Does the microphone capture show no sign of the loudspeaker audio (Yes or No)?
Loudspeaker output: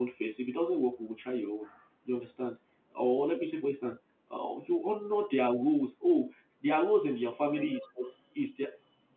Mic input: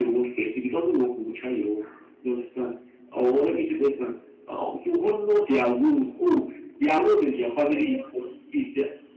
No